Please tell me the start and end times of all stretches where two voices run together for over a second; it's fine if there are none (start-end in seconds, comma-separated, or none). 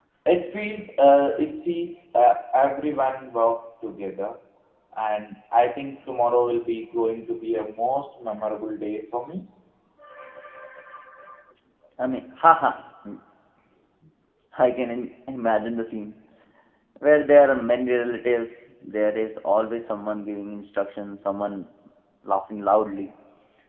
none